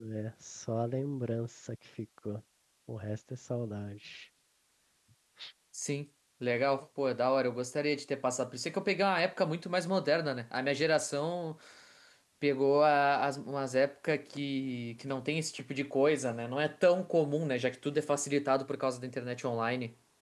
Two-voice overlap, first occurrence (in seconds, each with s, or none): none